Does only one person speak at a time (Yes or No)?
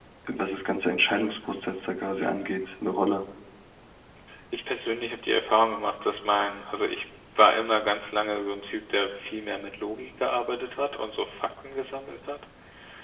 Yes